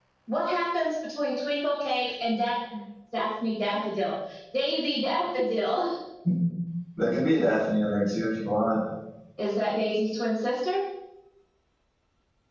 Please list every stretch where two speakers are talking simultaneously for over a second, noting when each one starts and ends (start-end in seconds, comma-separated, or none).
none